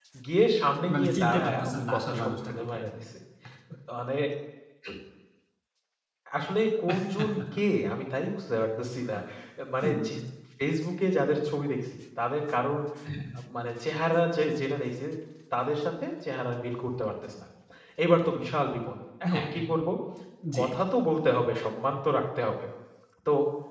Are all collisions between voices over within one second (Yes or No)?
No